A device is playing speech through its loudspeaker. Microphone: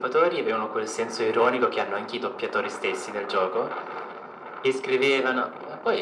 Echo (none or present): present